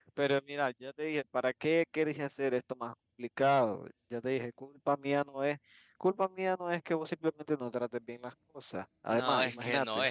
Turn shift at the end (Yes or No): Yes